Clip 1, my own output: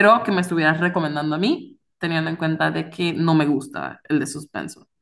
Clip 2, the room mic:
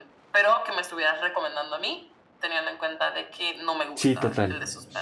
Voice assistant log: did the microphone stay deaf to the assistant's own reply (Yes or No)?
No